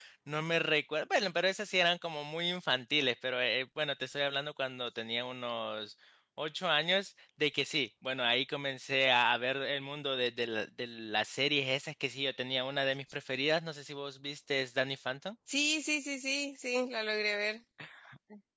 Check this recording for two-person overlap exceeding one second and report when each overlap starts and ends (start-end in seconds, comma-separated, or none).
none